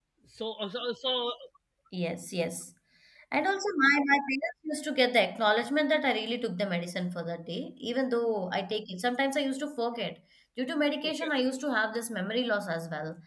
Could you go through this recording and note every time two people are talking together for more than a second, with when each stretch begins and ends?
none

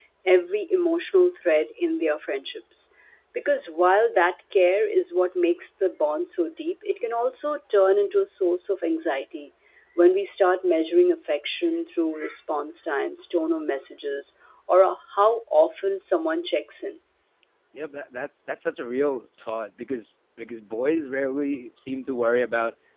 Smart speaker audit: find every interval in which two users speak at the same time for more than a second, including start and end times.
none

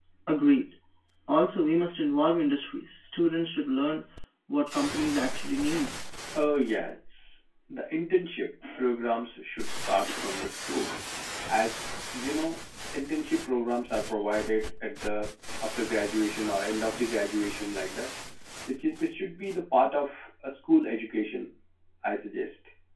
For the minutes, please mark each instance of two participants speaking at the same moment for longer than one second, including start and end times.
none

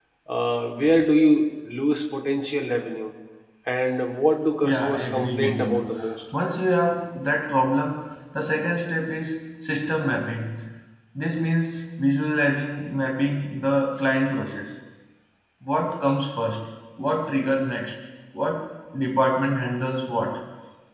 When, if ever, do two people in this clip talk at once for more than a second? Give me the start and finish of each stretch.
4.6-5.9

